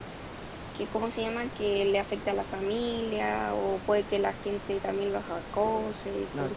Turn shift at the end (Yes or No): Yes